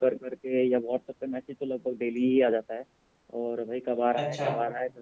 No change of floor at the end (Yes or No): Yes